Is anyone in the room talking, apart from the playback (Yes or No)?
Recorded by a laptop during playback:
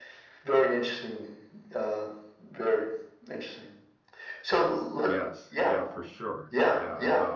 Yes